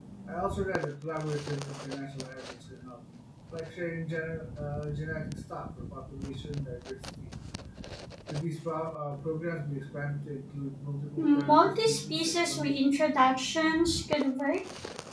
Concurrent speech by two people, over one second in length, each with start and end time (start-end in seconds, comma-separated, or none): 11.2-12.8